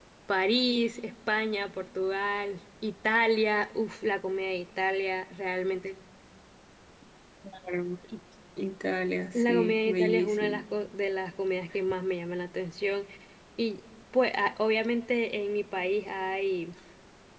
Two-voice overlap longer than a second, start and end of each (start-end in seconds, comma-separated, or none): 9.3-10.6